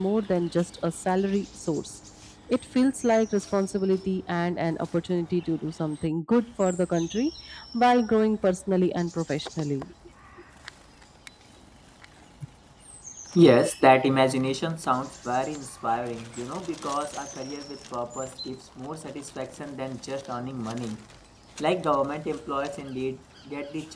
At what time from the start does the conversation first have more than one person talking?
none

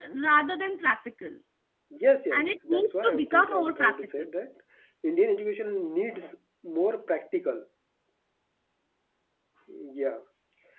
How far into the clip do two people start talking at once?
2.3 s

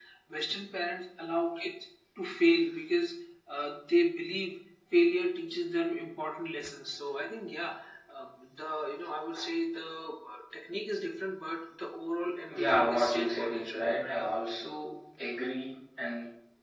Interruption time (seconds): 12.5 s

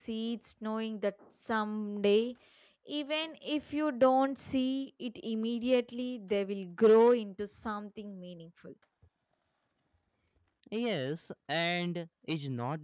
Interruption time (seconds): none

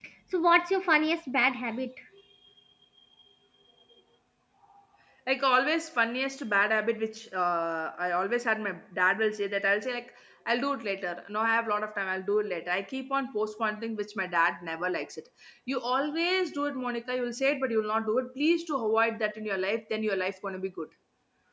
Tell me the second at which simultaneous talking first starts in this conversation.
none

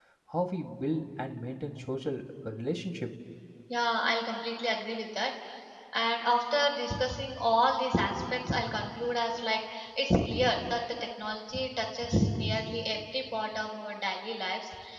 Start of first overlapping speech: none

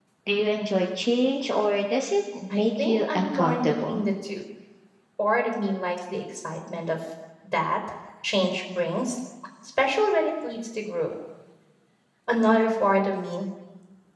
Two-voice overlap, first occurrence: 2.5 s

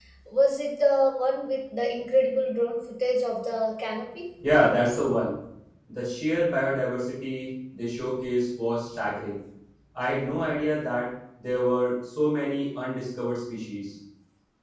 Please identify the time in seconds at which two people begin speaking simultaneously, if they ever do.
none

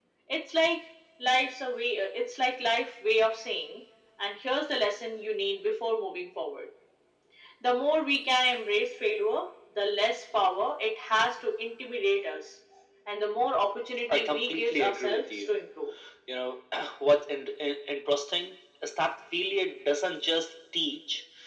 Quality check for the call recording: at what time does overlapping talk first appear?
14.1 s

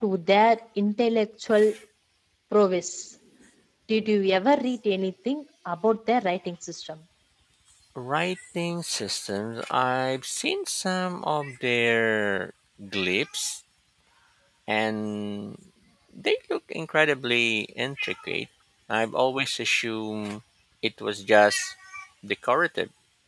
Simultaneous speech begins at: none

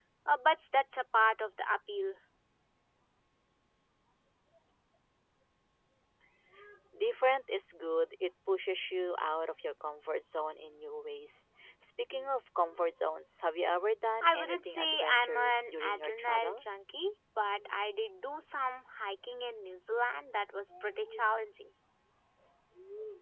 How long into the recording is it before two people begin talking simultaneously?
14.2 s

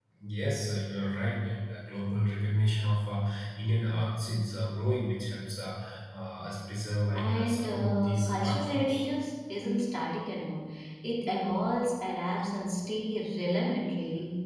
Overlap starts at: 7.1 s

